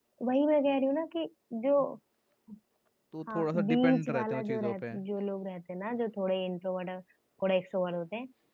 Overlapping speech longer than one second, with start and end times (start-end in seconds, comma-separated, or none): 3.3-4.8